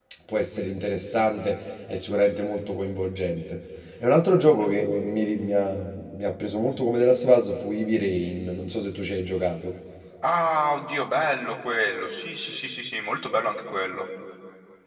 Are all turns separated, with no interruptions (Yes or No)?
Yes